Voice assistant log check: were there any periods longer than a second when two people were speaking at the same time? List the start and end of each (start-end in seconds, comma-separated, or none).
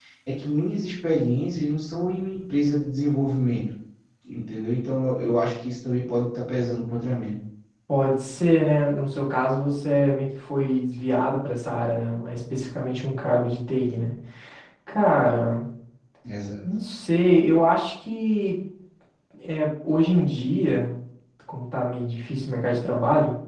none